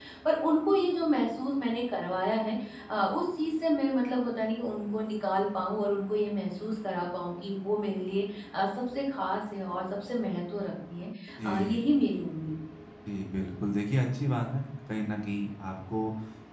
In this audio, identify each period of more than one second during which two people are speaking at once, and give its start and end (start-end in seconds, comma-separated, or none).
none